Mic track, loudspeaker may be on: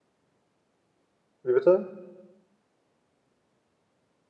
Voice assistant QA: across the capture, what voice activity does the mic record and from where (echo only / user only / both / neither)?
user only